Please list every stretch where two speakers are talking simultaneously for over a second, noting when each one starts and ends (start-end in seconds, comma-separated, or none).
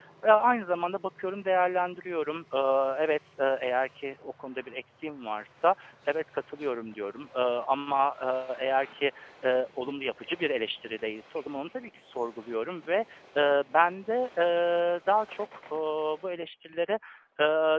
none